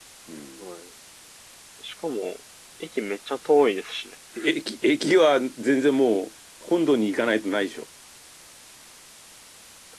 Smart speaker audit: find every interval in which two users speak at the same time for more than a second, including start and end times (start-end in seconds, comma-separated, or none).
none